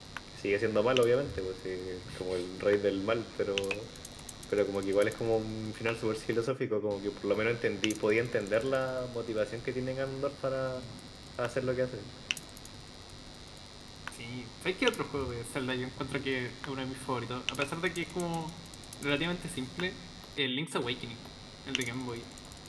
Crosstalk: none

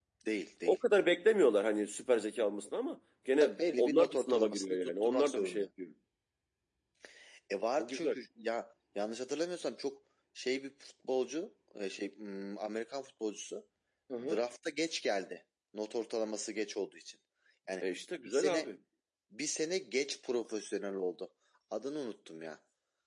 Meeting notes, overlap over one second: present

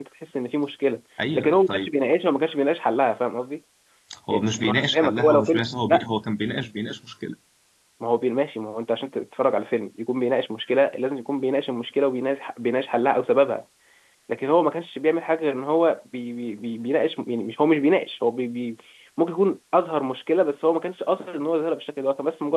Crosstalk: present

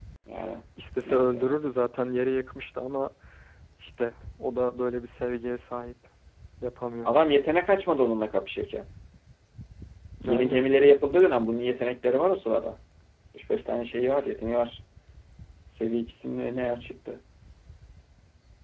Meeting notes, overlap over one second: none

